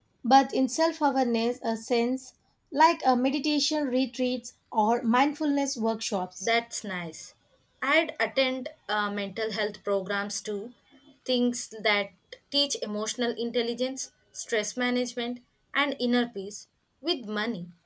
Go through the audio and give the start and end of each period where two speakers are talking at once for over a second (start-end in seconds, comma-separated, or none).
none